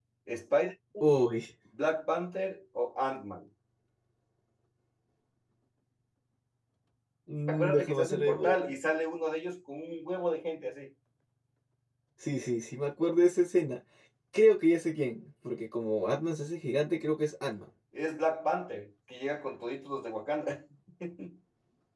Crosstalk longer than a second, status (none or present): present